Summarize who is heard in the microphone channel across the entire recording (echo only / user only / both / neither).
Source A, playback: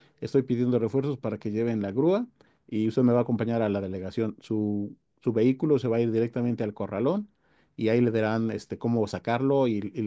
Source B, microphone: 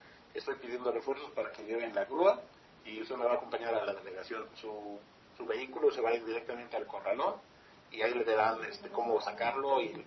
both